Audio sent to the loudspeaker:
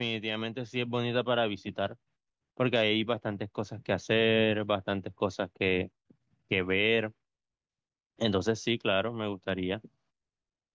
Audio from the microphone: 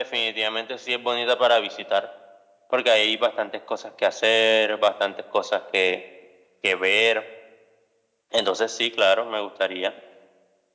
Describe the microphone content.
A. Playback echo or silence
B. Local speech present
A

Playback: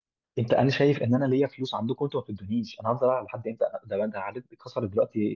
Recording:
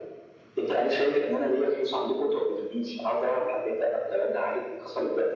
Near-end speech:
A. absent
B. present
A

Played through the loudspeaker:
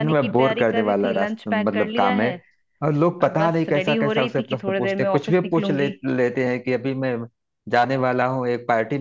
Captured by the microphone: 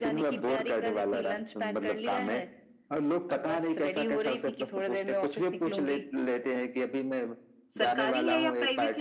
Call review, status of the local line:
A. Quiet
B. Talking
B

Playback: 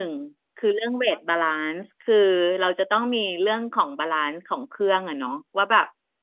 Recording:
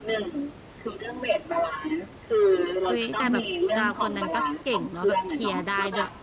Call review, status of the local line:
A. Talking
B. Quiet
A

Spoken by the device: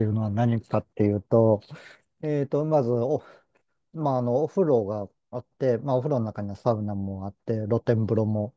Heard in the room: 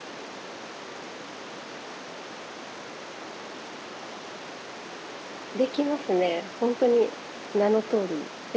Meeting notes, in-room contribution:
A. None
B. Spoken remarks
B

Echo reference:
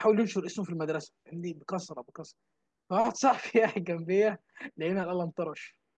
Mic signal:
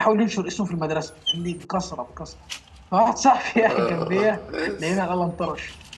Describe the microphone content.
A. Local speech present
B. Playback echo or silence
A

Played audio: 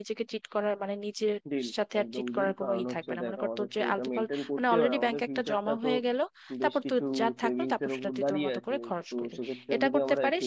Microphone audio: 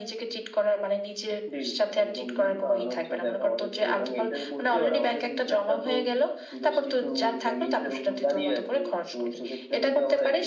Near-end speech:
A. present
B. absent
B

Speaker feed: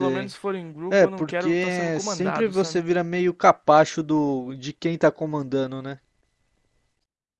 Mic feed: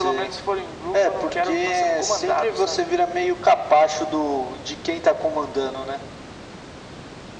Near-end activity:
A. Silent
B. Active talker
A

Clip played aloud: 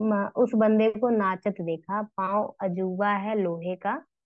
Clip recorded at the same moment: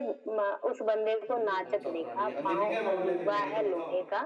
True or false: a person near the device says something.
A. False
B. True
B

